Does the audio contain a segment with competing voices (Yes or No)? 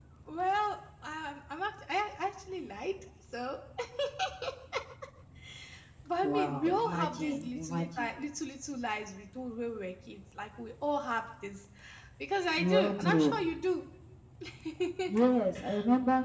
Yes